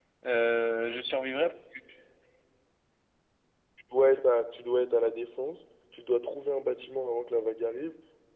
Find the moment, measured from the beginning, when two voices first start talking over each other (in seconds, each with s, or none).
none